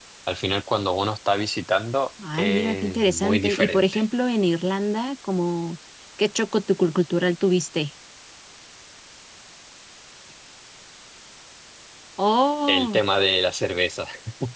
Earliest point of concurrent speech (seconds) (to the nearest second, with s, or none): 2 s